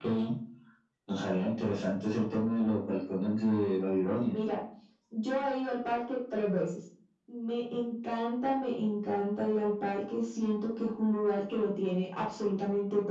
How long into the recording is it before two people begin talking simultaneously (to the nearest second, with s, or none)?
none